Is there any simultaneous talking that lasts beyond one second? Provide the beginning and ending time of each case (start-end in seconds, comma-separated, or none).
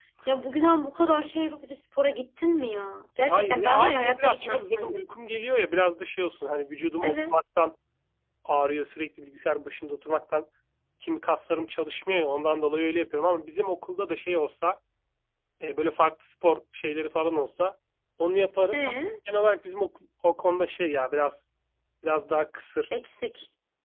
3.3-5.1